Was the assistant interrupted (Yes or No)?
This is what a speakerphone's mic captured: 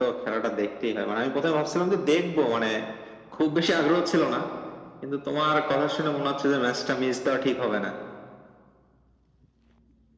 No